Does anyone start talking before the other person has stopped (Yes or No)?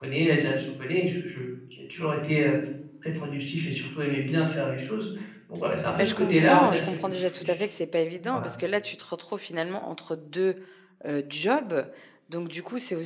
Yes